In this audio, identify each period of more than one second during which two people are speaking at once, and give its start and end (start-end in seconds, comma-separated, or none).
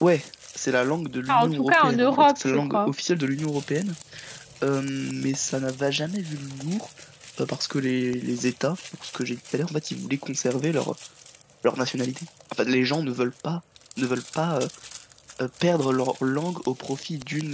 1.3-2.9